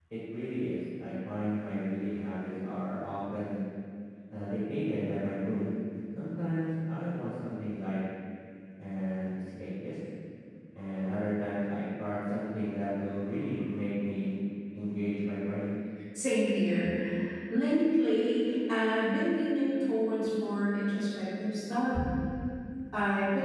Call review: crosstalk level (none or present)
none